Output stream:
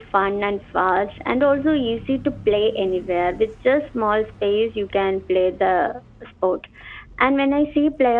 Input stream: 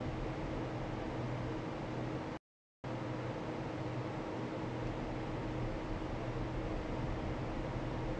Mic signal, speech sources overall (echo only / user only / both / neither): neither